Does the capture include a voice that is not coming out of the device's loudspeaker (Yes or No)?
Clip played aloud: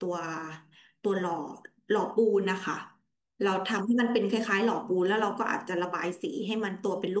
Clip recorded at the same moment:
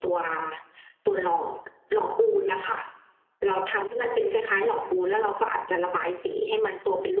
No